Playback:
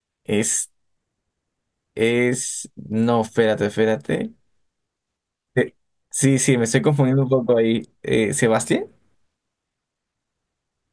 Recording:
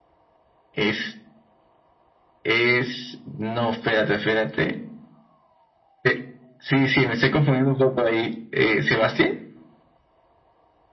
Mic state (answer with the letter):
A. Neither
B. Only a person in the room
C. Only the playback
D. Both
C